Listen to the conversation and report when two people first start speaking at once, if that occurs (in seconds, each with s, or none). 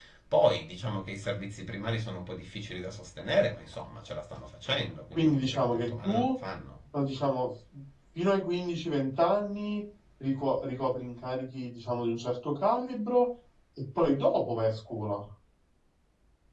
5.1 s